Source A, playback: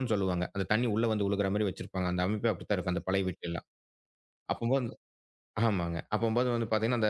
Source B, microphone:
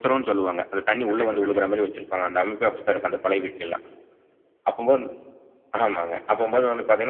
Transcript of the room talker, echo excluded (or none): கண்டிப்பா, கண்டிப்பா.